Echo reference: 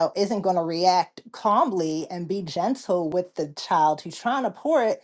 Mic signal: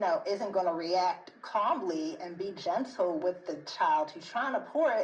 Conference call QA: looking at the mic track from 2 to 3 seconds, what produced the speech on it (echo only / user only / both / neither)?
echo only